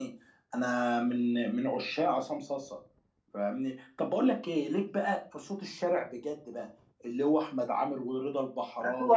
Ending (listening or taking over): taking over